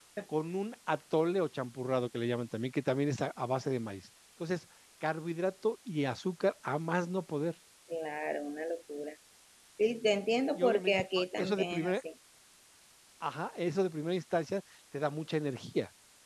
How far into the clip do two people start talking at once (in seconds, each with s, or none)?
10.5 s